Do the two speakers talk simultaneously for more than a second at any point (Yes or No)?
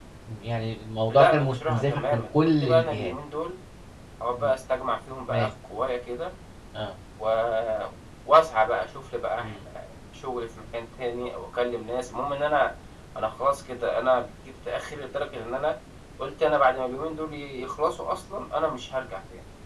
Yes